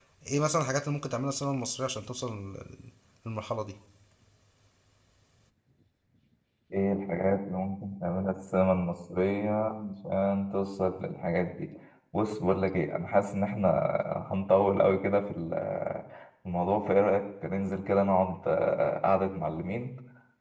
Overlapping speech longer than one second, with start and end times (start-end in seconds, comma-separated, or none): none